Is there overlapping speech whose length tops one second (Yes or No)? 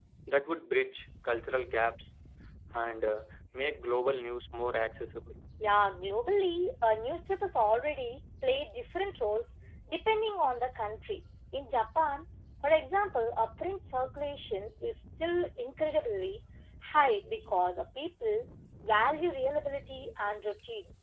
No